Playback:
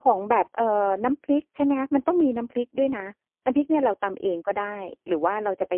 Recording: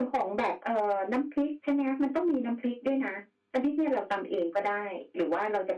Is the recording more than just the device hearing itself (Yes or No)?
No